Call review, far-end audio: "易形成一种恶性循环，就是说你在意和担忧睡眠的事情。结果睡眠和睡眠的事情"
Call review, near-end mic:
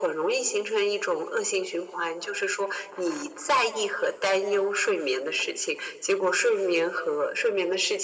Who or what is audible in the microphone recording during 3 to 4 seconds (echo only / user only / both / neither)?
echo only